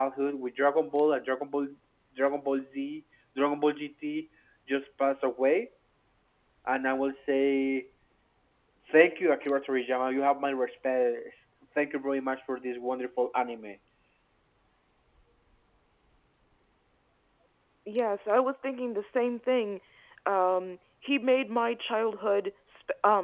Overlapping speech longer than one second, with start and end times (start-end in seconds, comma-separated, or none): none